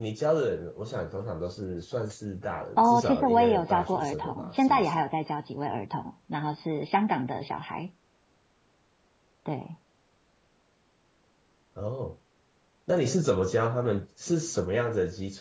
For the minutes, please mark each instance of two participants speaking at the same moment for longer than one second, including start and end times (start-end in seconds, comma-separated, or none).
2.8-5.0